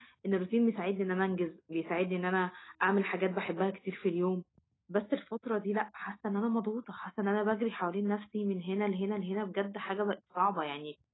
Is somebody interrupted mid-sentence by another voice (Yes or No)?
No